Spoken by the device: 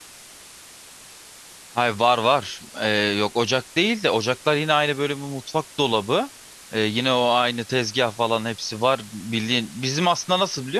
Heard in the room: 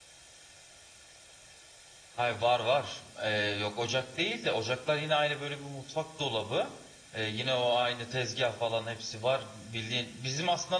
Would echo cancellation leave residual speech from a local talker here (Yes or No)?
No